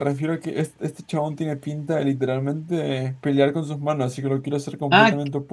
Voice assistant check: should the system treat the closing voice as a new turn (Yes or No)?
Yes